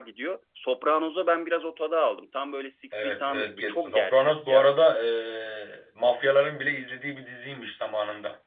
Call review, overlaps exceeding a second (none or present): present